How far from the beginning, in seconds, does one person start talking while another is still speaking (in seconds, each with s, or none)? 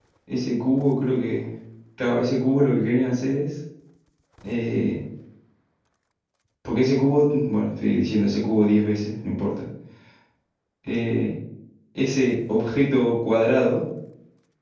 none